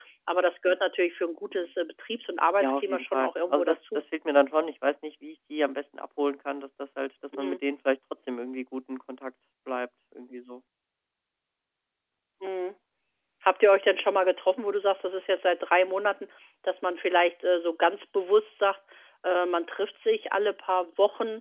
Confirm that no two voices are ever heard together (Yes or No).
No